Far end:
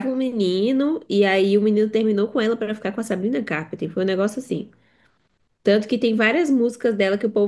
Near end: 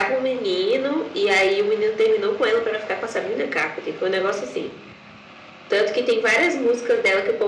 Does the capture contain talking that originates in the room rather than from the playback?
No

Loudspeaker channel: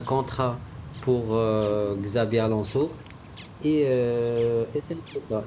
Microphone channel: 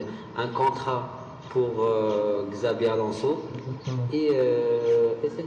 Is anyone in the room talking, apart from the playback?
Yes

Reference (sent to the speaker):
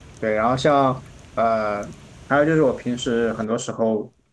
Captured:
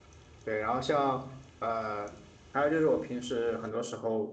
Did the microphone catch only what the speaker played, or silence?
Yes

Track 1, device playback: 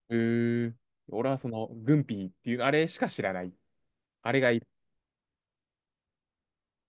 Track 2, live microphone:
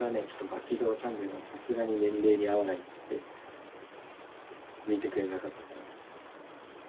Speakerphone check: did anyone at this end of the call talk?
Yes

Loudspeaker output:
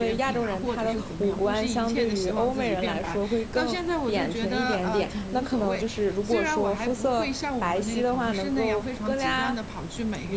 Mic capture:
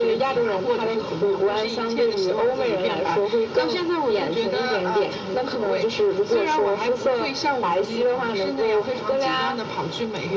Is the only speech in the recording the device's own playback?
Yes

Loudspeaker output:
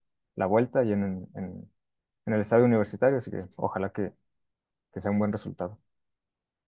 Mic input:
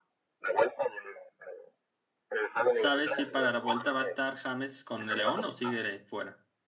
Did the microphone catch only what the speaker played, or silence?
No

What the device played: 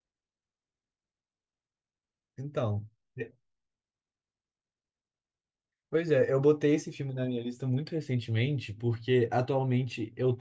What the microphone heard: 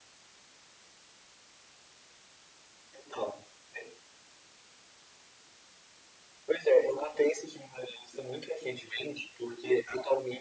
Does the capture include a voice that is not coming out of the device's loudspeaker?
No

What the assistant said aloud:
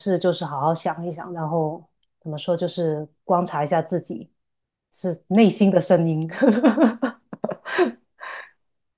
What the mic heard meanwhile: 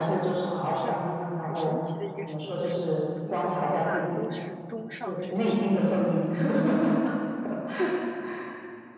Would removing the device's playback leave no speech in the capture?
No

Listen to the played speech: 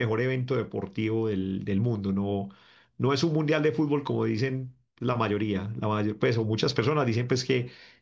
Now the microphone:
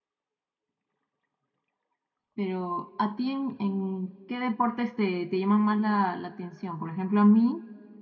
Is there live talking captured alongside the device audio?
Yes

